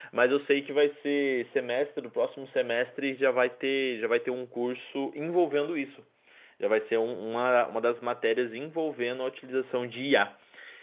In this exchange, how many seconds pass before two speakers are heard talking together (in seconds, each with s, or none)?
none